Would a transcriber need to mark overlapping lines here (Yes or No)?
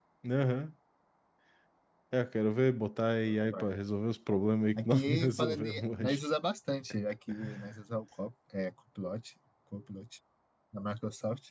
Yes